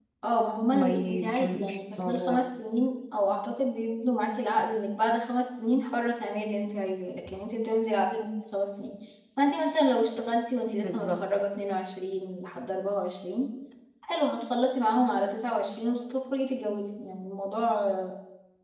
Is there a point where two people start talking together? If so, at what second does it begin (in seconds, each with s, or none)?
0.7 s